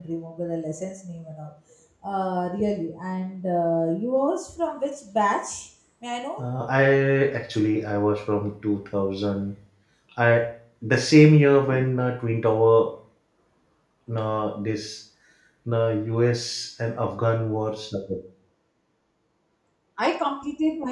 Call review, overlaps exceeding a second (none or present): none